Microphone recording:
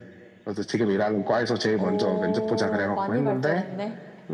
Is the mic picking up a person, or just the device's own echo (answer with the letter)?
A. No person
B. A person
B